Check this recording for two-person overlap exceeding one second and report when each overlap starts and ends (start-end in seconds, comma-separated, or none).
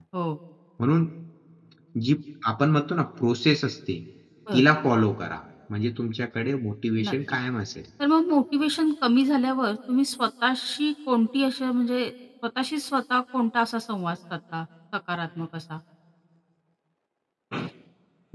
none